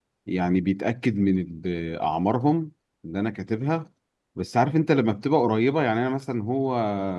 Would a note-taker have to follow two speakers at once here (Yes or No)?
No